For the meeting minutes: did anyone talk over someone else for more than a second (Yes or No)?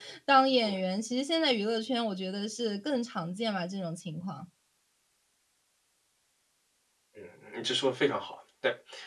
No